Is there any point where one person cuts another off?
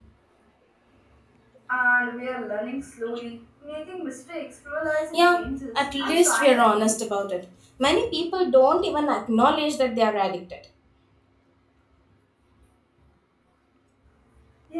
Yes, from 5.1 s

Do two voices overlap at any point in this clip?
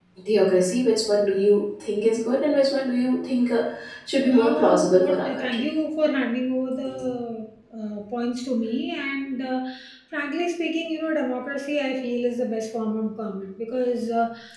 Yes, from 4.4 s

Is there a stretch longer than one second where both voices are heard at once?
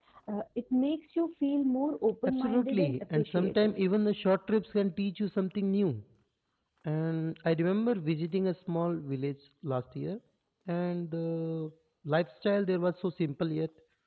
Yes, from 2.3 s

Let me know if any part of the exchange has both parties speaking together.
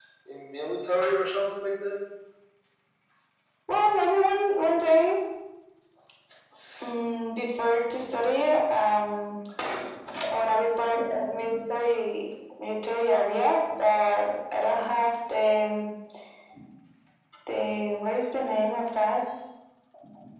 No

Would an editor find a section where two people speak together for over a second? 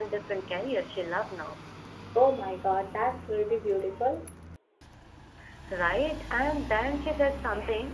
No

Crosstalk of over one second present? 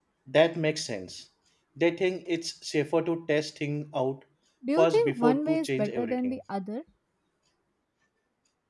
Yes, from 4.8 s

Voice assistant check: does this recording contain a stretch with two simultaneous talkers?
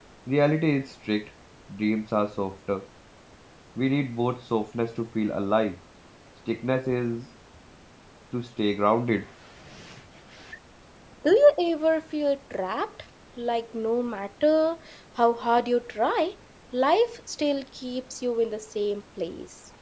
No

